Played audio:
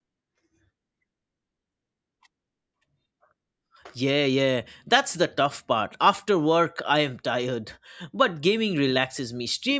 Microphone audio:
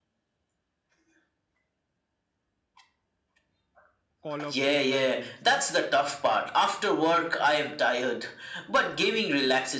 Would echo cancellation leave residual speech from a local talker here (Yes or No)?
Yes